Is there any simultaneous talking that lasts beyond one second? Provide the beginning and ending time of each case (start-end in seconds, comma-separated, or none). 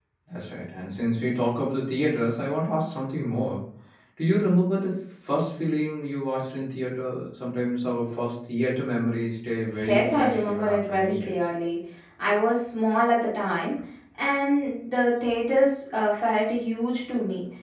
9.8-11.3